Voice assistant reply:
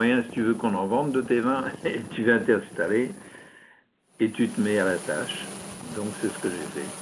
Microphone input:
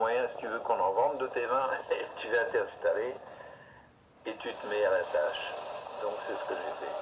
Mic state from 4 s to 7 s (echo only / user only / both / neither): echo only